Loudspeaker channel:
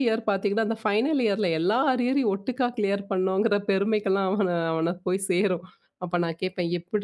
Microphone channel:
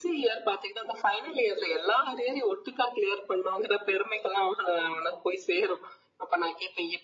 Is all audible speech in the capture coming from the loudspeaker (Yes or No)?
Yes